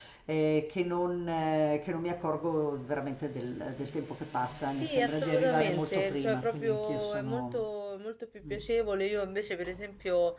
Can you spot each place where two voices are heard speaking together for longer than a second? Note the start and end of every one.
4.8-7.6

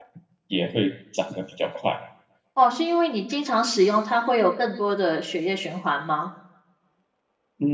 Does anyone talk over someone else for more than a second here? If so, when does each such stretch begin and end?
none

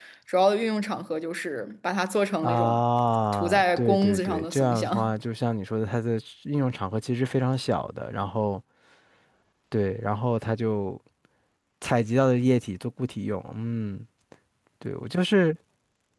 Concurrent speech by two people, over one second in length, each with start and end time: 3.3-5.1

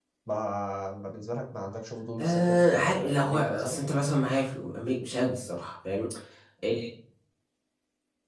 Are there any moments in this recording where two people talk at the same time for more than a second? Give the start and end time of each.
2.2-3.8

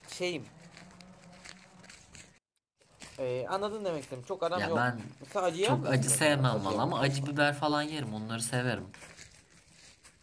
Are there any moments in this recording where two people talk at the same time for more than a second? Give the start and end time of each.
5.6-7.4

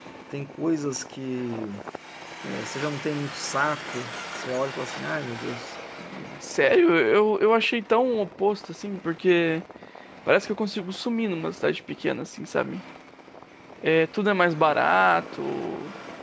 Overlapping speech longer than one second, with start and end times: none

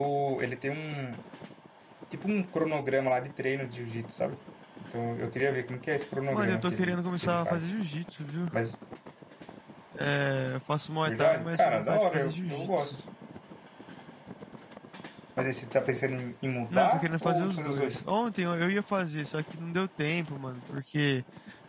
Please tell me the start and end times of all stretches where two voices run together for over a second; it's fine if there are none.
6.3-7.7, 11.1-12.9, 16.7-18.0

